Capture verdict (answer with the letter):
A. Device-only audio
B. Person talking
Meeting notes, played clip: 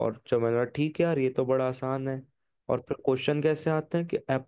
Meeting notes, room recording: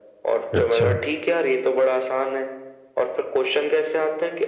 B